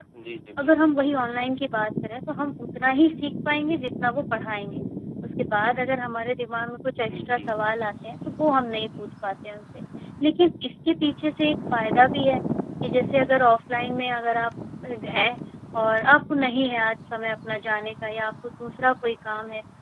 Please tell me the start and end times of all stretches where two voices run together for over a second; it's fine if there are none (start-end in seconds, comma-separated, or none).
none